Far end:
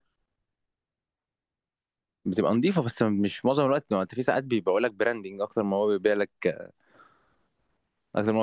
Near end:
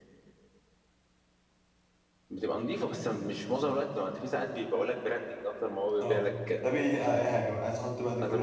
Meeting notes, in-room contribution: present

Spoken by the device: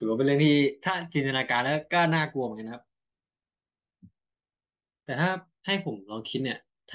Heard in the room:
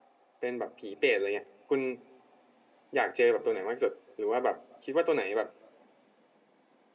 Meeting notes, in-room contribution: present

